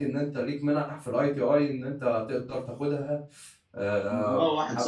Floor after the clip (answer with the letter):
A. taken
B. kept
A